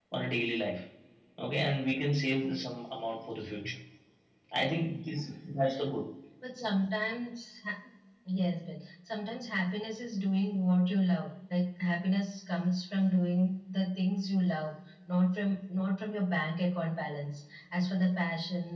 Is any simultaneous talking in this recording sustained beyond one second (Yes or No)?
No